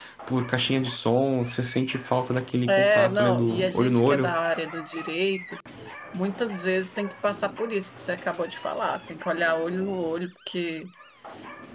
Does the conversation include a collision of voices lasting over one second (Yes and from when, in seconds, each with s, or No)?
Yes, from 2.7 s